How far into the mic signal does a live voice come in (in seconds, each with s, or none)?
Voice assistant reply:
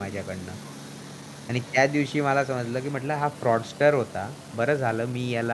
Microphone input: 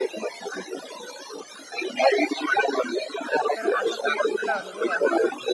3.5 s